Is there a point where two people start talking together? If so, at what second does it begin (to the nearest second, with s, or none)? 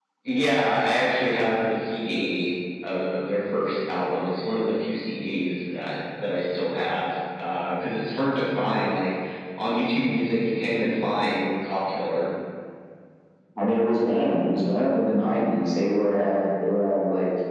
none